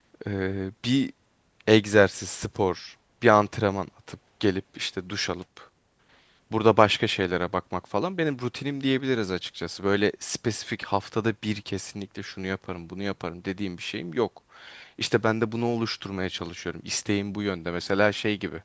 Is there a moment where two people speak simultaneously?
No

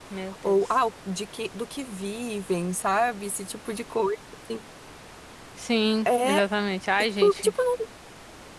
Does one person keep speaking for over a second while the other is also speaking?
No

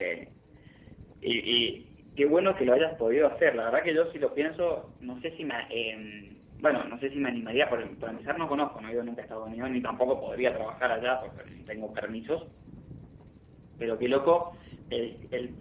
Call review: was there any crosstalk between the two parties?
No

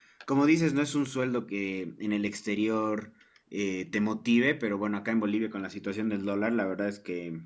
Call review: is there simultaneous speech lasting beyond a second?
No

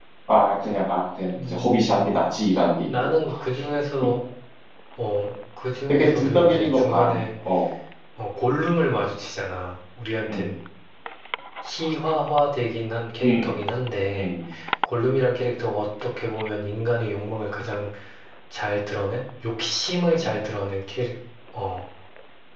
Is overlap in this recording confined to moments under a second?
No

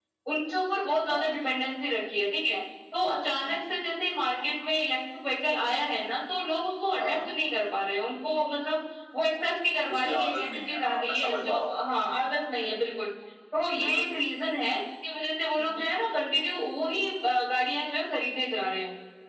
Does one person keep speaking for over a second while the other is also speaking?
Yes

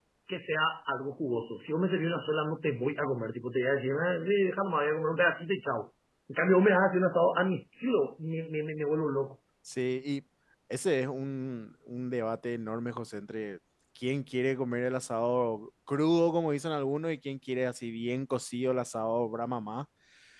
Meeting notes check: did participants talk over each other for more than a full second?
No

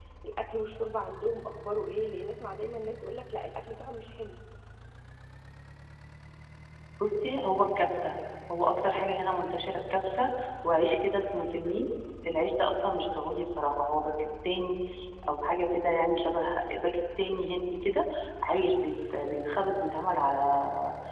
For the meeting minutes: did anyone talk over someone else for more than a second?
No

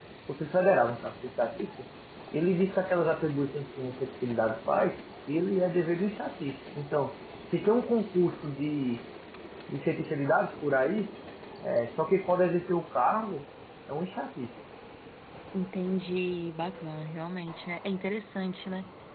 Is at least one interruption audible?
No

